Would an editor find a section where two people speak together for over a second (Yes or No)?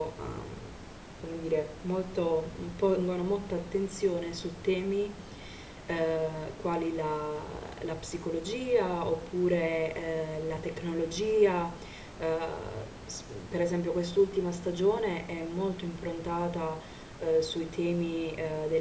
No